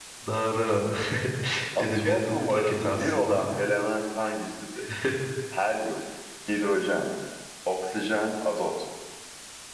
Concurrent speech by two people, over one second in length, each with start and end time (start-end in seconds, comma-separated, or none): 1.8-3.6